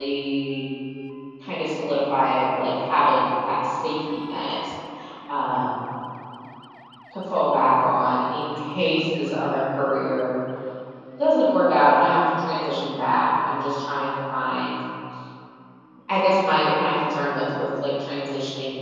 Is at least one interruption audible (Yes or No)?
No